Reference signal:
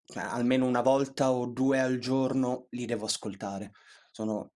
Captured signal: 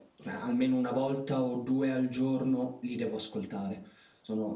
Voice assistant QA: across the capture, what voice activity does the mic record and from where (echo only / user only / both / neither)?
echo only